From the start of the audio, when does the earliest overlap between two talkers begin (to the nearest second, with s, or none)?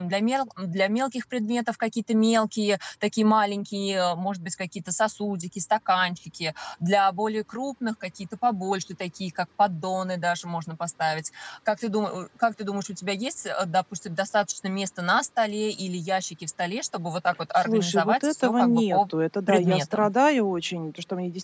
18 s